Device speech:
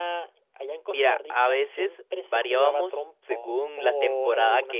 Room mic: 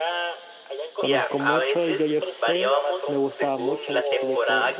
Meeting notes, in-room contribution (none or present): present